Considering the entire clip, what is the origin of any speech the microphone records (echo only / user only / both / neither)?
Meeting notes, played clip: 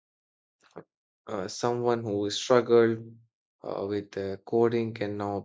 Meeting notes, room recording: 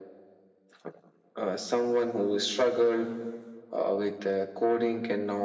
echo only